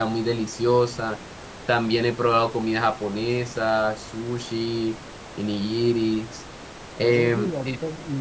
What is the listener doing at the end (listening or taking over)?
taking over